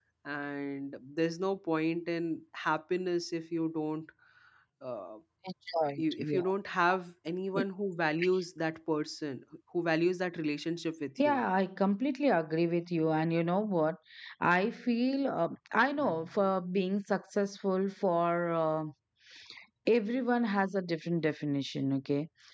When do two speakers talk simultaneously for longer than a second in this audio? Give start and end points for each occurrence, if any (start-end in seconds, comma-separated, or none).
none